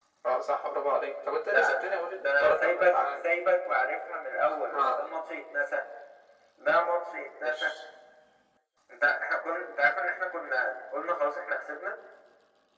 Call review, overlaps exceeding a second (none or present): present